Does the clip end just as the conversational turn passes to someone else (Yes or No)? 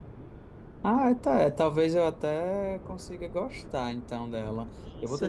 Yes